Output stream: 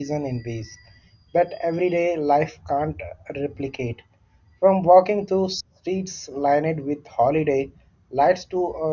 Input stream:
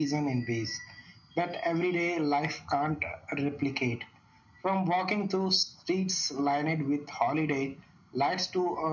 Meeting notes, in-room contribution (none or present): none